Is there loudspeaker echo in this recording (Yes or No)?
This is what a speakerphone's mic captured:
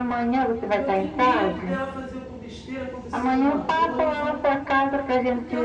Yes